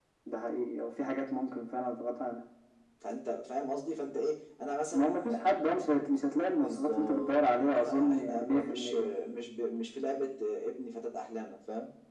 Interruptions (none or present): present